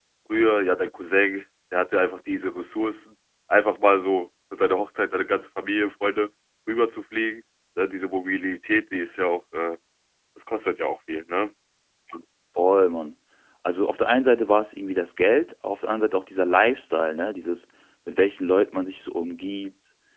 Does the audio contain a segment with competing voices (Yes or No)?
No